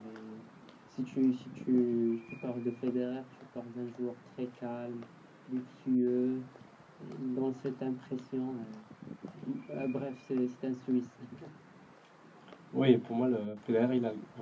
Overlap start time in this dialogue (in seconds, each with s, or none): none